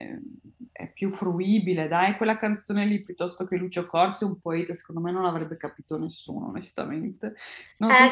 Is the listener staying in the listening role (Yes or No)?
No